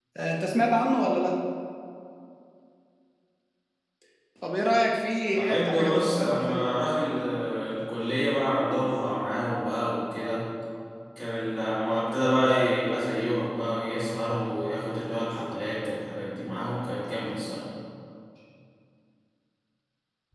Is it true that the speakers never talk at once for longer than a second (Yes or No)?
No